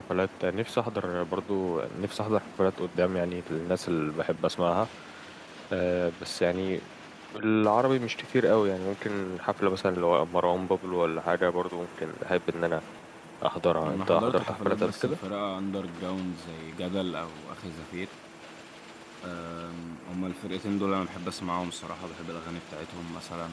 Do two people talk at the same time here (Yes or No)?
Yes